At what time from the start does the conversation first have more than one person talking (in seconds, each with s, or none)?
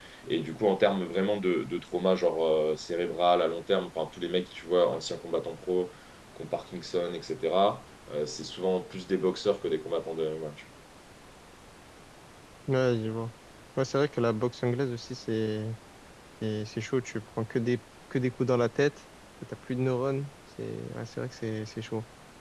none